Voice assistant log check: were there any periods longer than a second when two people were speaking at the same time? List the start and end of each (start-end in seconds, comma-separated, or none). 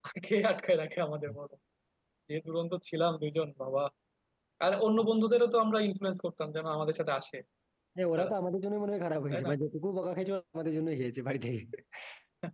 none